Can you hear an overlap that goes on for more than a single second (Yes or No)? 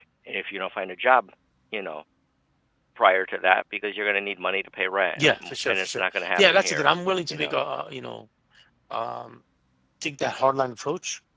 Yes